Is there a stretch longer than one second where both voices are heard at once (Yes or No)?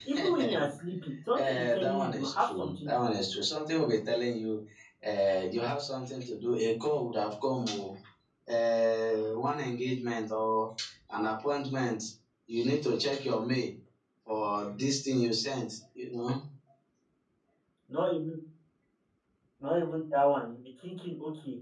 Yes